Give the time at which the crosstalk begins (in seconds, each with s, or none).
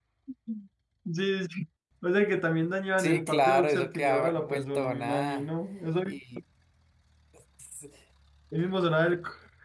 3.0 s